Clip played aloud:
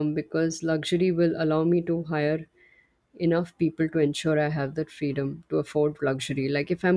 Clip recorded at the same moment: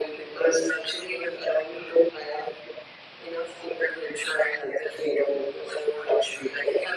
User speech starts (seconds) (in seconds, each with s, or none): none